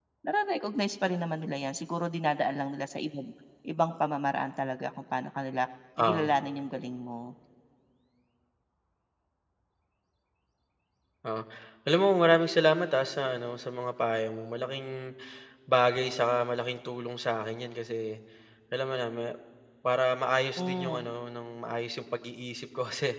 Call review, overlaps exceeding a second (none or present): none